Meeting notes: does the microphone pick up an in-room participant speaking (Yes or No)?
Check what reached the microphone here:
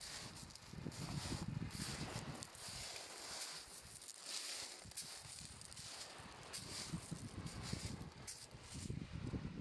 No